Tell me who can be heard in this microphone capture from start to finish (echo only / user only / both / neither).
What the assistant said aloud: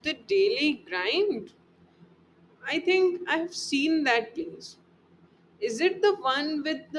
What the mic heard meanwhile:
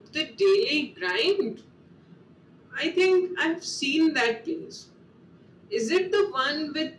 echo only